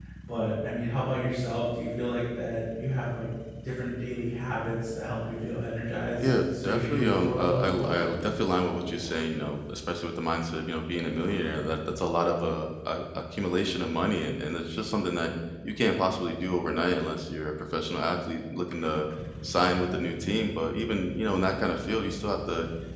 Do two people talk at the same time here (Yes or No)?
Yes